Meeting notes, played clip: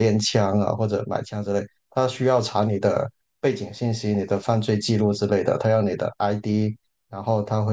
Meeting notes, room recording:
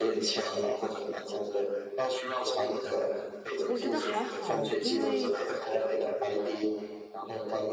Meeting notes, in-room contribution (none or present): present